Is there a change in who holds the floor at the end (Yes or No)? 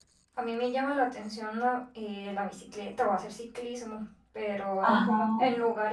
No